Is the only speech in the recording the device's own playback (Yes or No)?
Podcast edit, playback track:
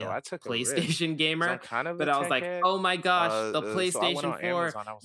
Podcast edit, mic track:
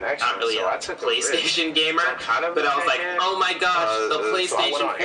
Yes